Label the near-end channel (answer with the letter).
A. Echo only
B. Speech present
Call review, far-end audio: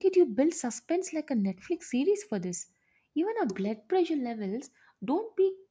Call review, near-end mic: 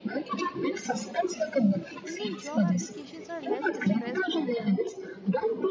B